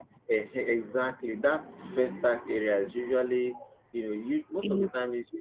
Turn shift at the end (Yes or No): No